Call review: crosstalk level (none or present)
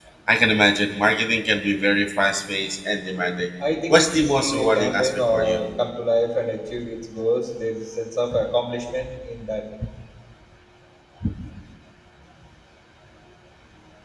present